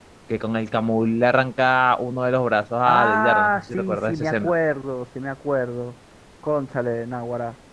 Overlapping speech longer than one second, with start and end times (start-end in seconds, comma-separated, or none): 2.9-4.5